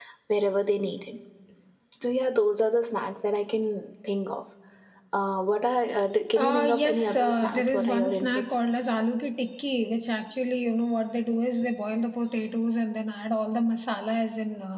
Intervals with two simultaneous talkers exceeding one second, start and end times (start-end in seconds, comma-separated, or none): 6.3-8.4